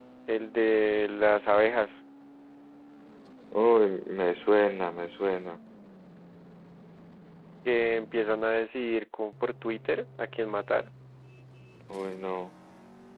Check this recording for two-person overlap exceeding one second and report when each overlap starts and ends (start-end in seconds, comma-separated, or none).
none